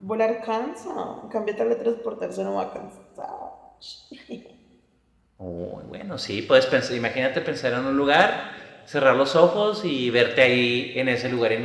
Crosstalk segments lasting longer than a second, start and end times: none

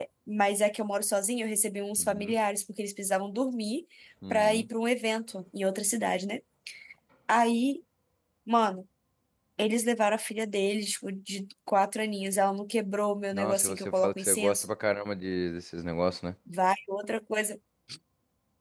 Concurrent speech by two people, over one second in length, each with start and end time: 13.3-14.7

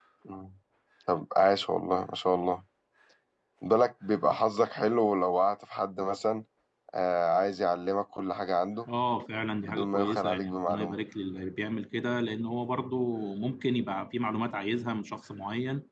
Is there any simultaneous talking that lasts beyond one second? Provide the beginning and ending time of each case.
9.6-11.0

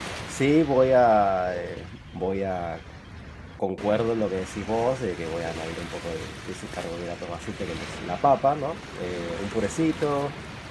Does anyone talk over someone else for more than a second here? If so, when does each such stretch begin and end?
none

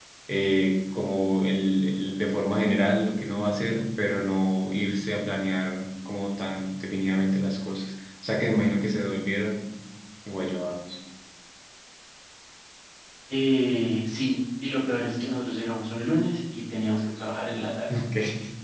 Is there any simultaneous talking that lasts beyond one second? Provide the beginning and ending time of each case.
none

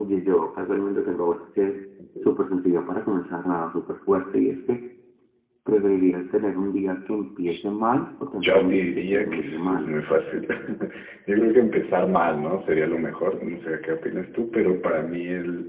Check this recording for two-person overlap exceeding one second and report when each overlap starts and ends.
8.4-9.9

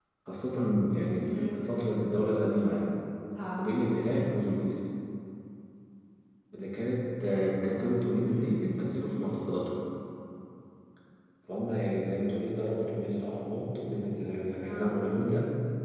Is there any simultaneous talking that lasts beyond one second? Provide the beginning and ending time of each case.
none

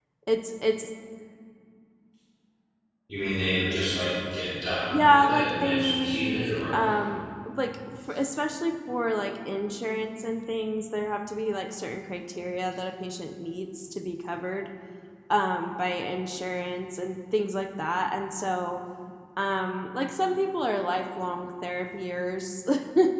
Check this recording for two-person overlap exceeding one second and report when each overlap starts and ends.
4.9-6.8

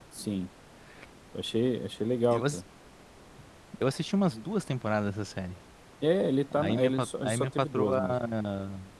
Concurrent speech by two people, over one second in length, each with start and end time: 6.6-8.0

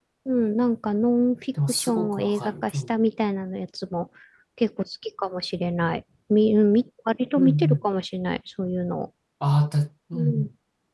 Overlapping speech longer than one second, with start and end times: 1.7-3.0

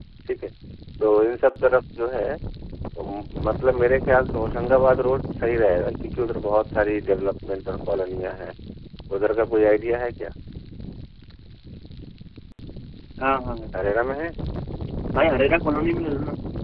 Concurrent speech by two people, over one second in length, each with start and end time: none

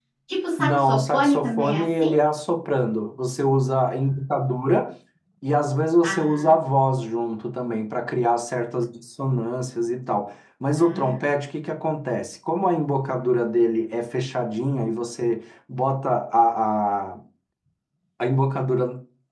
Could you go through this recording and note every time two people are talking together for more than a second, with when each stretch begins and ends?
0.6-2.2

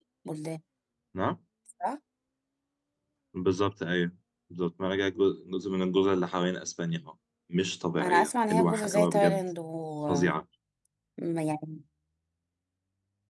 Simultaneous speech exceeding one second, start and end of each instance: 8.0-9.4

